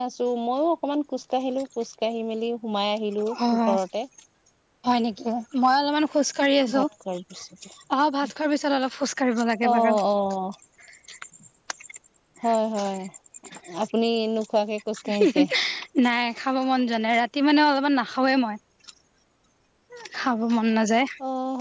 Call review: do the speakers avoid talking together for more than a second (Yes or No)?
Yes